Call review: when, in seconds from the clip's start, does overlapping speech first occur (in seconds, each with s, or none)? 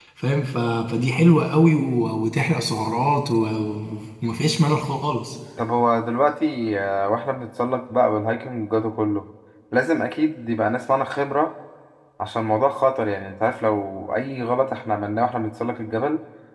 none